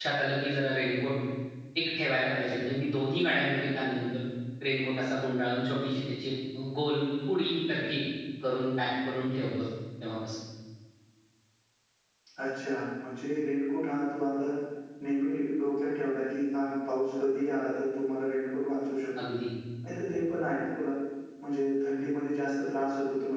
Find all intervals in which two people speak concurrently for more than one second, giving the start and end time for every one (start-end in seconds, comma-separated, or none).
none